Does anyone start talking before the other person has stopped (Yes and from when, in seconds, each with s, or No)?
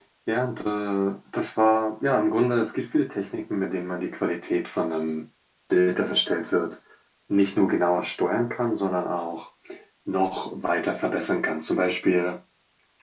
No